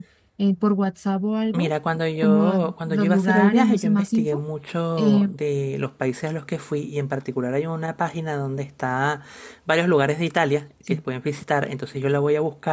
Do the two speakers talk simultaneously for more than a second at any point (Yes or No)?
Yes